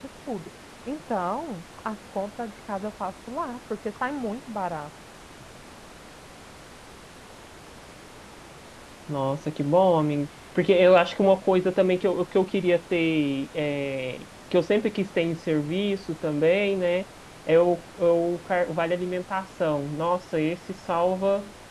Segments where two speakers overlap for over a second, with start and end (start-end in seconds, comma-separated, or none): none